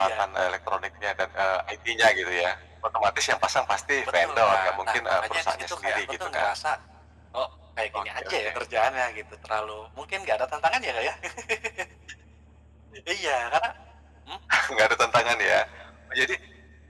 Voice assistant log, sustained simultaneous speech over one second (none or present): present